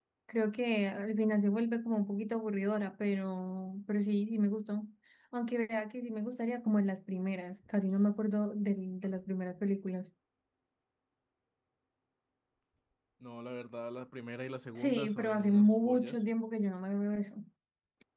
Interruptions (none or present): present